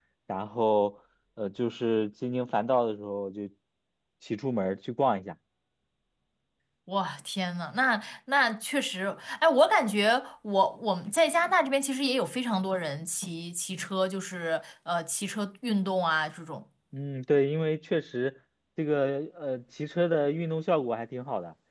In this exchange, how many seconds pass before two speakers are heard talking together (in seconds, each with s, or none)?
none